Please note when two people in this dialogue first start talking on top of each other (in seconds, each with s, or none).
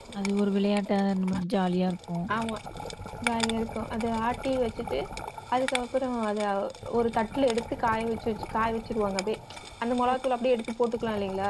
none